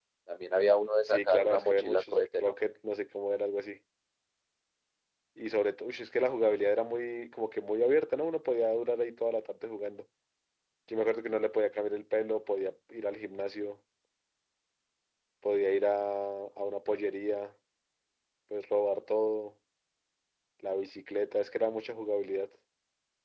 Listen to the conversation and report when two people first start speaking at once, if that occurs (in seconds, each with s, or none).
1.0 s